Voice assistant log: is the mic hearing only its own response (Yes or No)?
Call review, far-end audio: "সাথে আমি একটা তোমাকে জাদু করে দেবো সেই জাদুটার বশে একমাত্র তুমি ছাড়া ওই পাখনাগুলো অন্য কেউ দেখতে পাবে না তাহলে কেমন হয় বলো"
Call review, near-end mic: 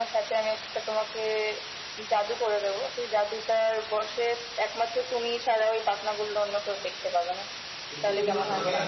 No